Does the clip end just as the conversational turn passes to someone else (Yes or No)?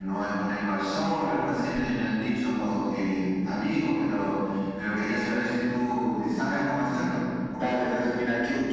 Yes